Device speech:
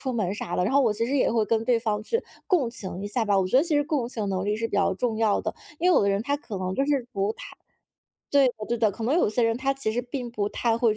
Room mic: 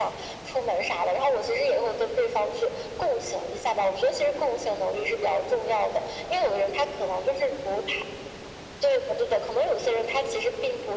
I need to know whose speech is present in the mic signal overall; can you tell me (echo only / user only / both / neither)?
echo only